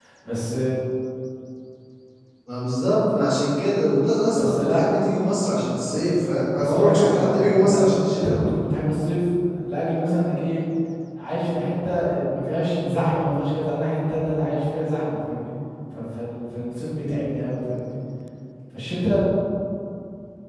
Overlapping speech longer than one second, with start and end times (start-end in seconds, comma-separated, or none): 6.6-8.4